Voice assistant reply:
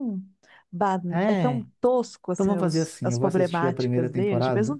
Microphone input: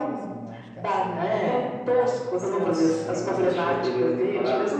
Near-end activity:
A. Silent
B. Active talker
B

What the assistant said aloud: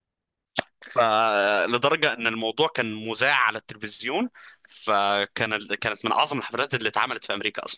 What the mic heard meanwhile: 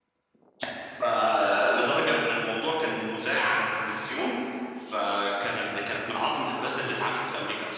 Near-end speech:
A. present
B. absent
B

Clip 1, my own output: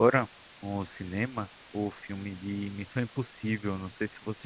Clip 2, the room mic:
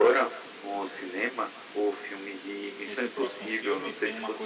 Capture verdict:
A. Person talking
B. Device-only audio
A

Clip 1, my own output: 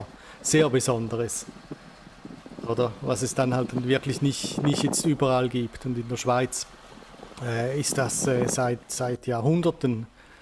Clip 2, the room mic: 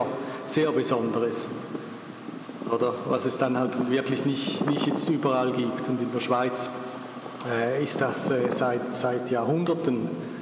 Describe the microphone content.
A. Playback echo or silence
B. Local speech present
A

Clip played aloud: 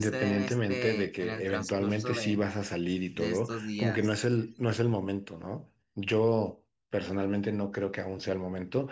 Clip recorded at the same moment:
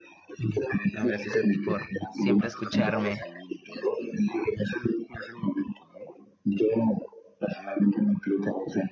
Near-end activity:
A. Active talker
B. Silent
A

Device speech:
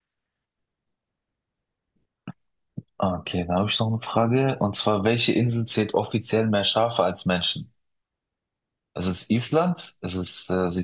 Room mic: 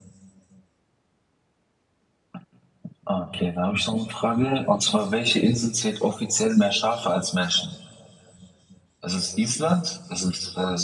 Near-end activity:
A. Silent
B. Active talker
A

